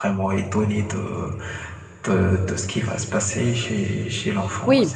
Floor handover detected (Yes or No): Yes